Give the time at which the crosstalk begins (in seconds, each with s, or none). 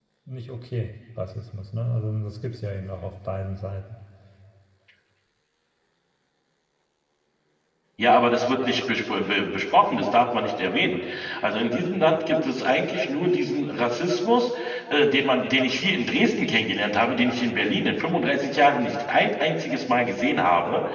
none